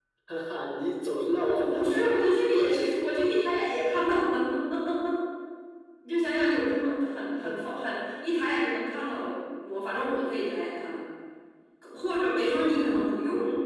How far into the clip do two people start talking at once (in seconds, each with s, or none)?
1.4 s